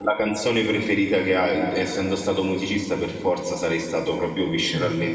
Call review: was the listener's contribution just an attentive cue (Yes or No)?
Yes